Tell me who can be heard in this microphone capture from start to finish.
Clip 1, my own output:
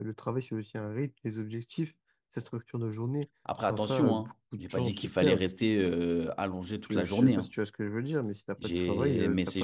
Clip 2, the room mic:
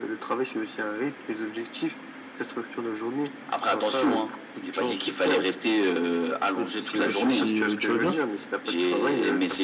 both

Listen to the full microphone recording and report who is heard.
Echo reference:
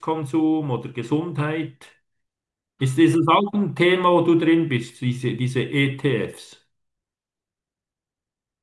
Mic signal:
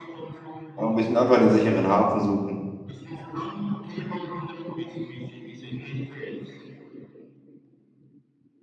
both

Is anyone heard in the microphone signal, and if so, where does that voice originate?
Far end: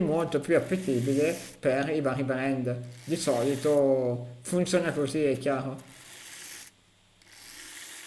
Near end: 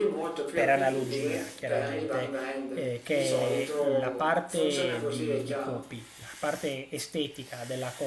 both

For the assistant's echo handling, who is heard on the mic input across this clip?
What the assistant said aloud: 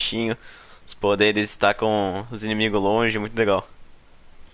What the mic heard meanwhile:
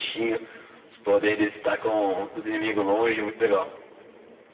echo only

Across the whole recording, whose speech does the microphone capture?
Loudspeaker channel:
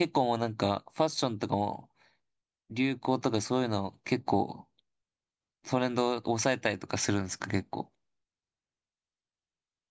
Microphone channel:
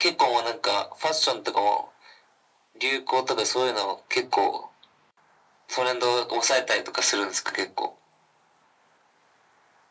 echo only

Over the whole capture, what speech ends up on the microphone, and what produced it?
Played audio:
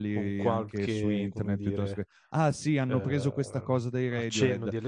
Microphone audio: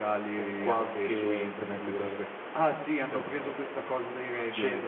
echo only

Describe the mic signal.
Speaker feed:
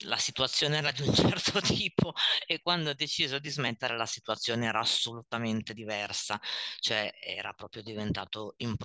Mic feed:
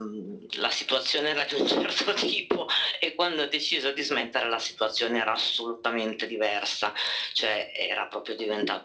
echo only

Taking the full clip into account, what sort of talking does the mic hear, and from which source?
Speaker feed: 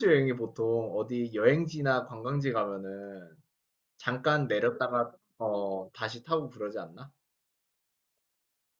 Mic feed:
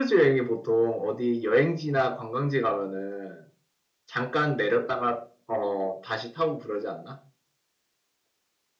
echo only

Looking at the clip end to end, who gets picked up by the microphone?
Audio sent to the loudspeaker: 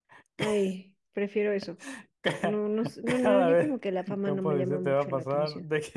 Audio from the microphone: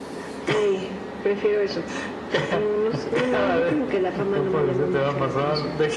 echo only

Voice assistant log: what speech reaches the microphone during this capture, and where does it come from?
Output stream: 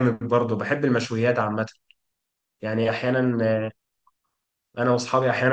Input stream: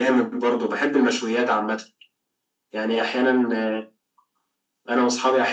echo only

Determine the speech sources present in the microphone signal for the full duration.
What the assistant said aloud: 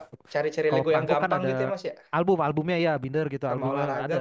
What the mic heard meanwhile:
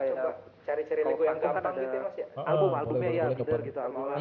both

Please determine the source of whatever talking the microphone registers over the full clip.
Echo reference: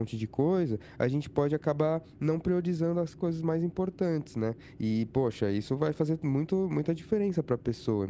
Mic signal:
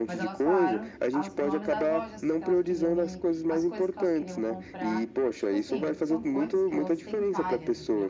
both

